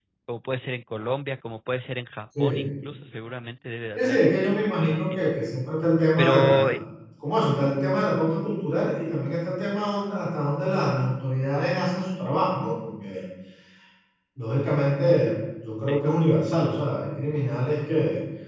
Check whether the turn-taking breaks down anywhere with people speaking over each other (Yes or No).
Yes